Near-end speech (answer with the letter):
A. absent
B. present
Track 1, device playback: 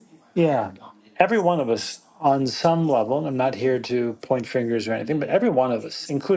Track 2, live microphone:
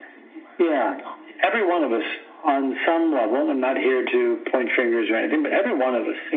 A